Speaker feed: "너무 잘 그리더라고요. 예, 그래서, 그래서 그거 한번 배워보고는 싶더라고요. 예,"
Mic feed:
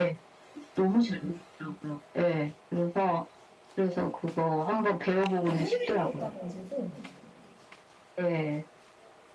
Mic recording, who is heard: both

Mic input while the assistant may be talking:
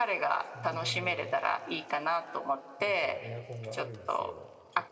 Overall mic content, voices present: both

